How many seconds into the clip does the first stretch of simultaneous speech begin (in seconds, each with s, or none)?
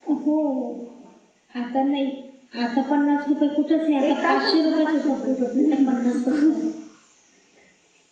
4.0 s